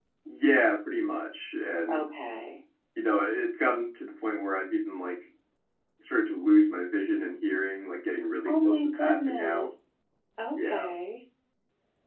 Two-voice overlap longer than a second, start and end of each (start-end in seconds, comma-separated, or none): 8.4-9.7